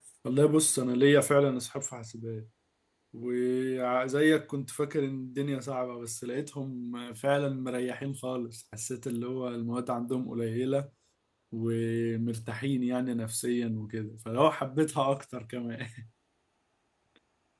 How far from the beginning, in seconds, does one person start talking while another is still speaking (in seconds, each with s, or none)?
none